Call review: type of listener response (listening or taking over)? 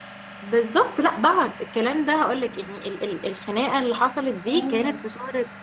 listening